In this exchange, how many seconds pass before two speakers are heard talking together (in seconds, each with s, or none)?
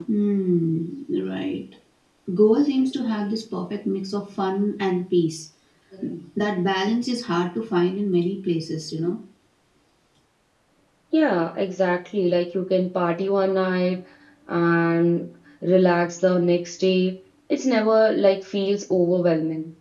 none